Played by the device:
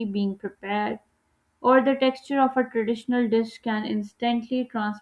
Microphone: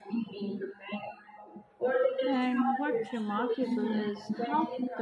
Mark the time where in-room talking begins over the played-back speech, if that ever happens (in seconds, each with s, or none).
2.2 s